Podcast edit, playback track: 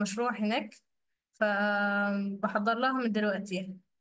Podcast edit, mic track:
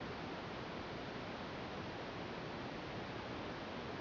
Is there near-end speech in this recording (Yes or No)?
No